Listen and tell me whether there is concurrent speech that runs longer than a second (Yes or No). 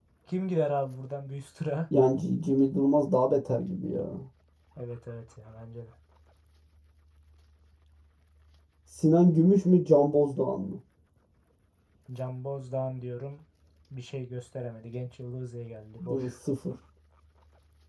No